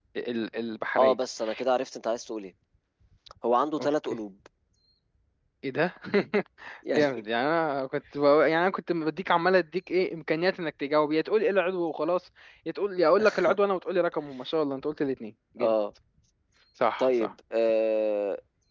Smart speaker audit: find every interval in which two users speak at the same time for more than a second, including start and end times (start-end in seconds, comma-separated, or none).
none